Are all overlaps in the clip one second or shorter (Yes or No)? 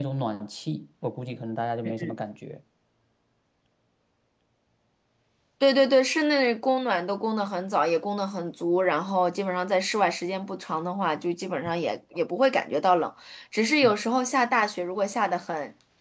Yes